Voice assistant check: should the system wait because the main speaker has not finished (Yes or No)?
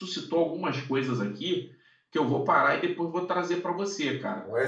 No